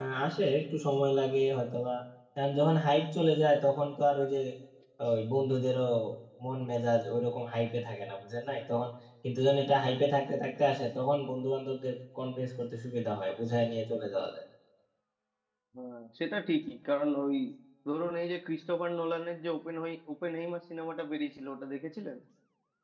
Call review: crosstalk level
none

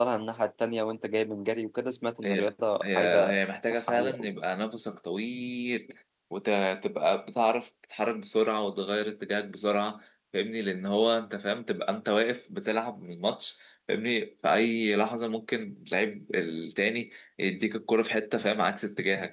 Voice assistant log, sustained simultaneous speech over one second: present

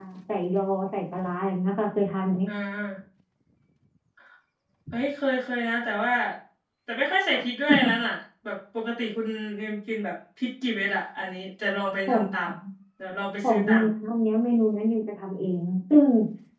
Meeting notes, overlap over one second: none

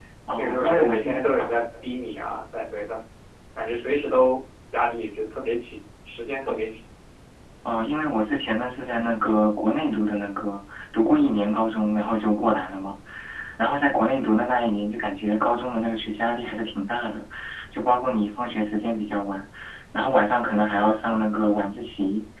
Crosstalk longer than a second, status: present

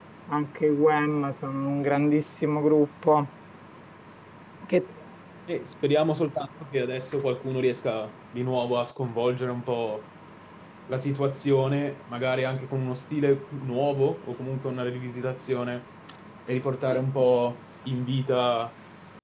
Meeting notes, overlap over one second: none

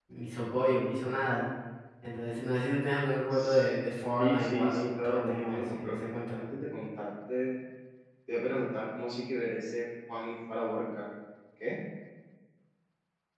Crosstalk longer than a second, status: present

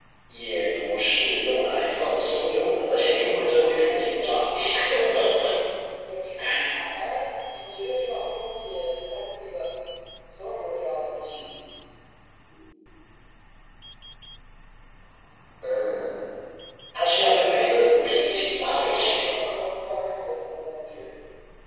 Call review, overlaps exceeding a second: present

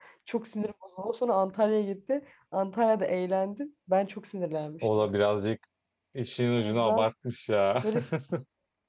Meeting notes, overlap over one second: none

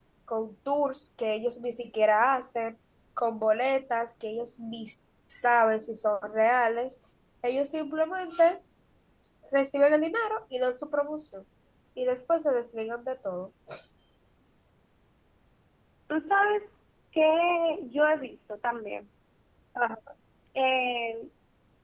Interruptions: none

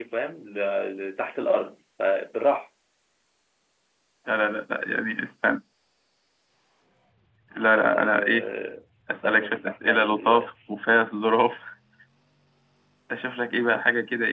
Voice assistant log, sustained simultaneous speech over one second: present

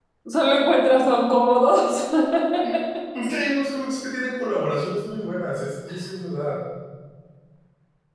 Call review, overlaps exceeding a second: none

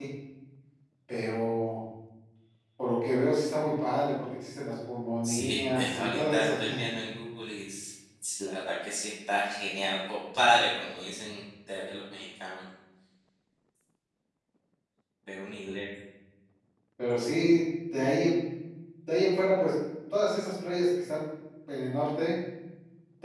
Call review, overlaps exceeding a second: present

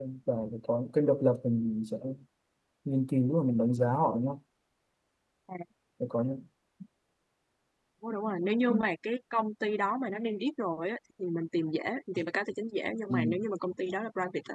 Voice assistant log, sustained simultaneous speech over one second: none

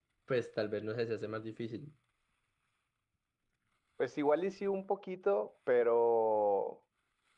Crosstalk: none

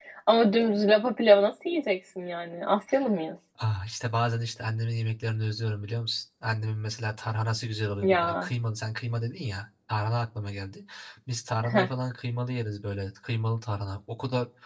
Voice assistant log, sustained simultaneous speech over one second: none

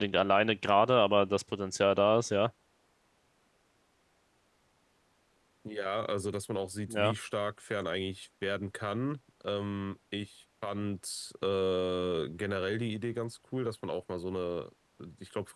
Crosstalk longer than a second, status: none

